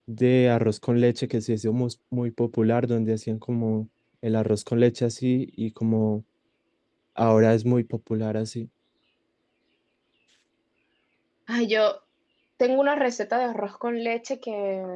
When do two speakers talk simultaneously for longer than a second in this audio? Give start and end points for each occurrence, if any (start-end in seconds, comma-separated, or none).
none